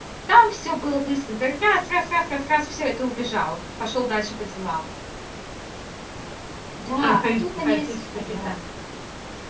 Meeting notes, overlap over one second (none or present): present